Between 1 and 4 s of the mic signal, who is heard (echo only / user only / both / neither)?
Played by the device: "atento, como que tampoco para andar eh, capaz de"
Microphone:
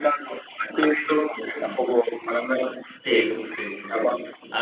both